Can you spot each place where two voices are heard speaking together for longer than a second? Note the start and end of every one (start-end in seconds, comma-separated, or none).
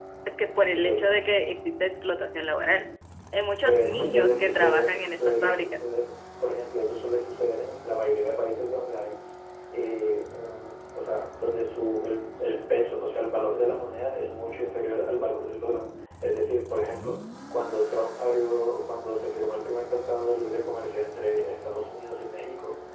3.6-5.8